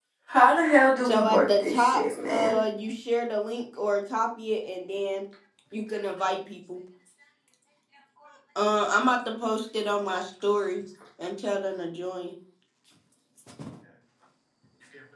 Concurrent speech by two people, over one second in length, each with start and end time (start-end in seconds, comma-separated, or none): 1.0-2.6